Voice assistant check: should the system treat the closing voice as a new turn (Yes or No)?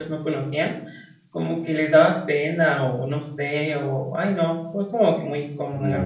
Yes